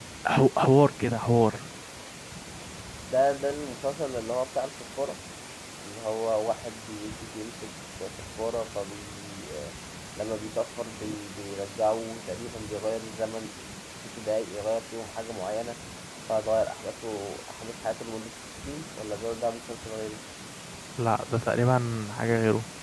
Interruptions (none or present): none